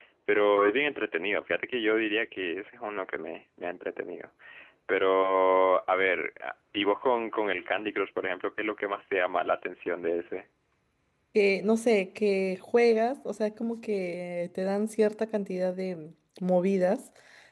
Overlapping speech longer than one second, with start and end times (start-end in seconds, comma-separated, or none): none